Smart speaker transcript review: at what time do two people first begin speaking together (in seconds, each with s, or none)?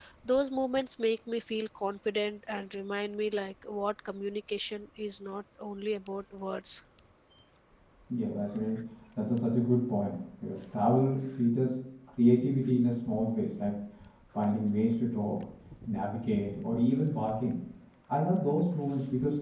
none